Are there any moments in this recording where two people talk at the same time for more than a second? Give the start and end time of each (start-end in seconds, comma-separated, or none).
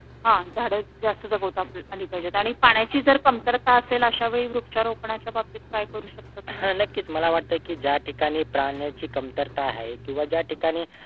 none